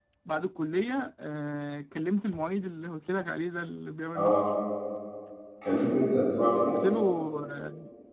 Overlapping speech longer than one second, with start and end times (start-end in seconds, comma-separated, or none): none